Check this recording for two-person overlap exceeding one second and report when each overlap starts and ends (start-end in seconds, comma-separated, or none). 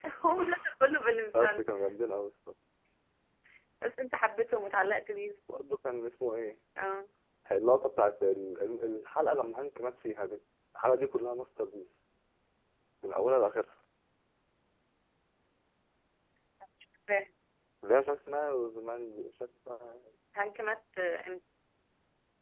none